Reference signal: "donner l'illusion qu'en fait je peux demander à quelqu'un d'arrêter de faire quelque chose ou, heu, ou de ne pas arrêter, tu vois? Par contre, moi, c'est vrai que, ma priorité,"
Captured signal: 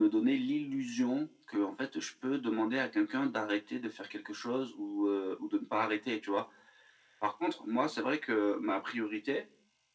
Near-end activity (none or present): none